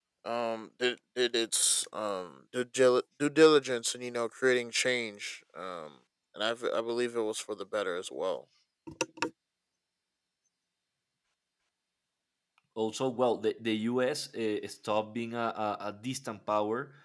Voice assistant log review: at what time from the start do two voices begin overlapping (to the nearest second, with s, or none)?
none